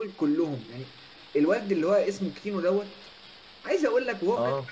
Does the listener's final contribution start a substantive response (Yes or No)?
No